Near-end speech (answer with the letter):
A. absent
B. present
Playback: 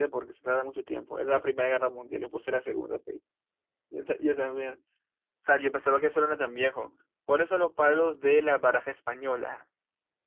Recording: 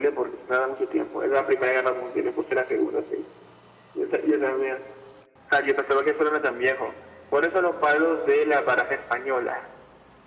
A